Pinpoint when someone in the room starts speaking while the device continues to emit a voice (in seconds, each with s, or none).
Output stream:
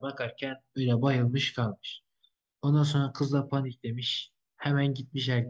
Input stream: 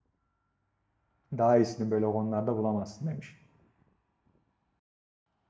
1.4 s